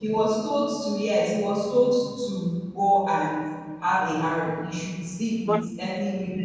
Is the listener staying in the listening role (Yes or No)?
Yes